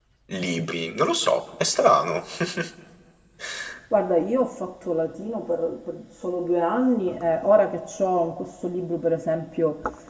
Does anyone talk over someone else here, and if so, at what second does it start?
none

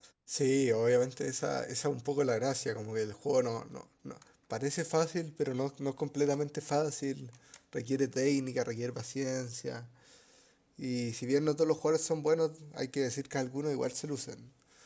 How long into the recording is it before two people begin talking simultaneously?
none

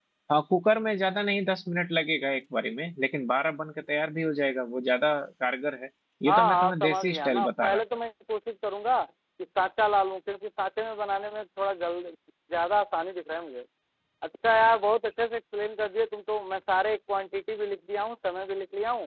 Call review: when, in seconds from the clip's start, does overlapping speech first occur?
6 s

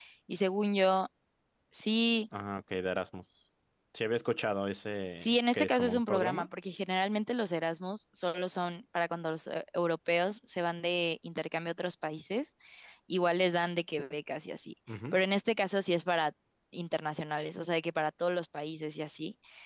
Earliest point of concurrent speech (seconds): 5 s

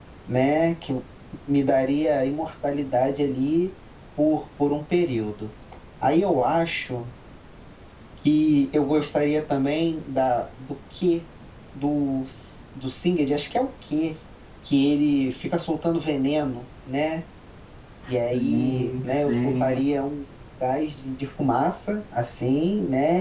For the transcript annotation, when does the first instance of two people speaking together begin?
18 s

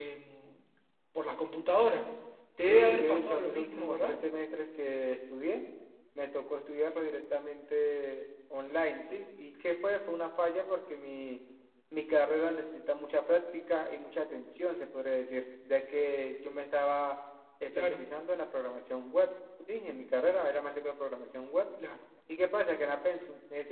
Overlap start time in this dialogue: 3 s

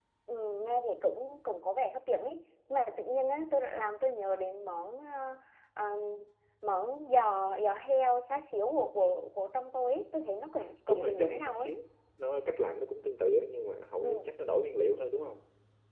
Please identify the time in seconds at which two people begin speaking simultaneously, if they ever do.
11 s

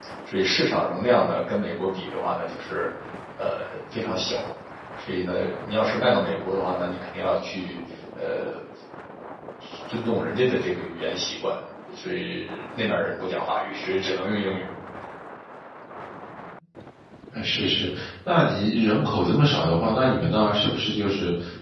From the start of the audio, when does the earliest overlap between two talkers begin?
none

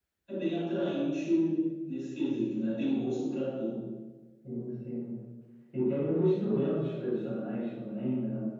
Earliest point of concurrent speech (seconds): none

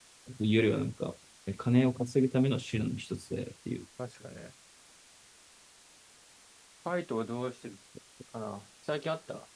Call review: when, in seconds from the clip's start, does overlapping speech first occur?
none

